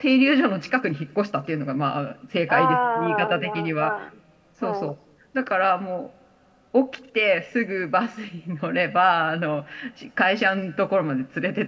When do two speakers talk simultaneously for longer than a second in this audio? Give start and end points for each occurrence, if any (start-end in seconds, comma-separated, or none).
2.5-3.9